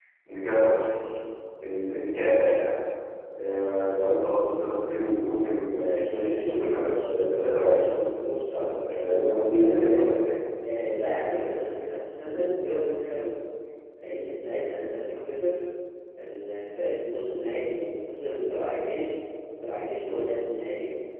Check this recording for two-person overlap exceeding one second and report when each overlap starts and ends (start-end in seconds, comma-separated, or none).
5.9-8.0, 8.8-10.2